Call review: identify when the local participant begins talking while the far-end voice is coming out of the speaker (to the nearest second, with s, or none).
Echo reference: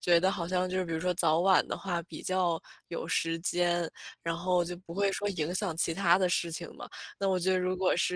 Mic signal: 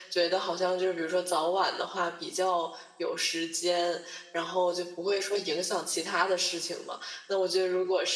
none